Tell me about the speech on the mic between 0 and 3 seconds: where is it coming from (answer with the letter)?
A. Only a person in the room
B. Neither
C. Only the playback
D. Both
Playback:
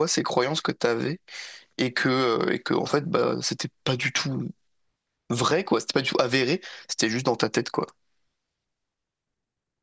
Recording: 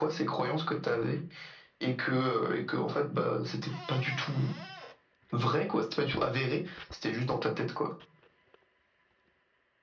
C